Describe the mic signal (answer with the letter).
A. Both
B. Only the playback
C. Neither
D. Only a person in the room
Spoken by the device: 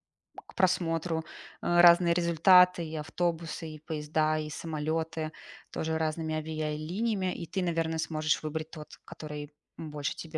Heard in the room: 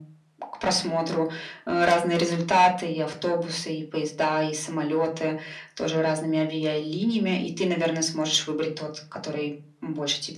B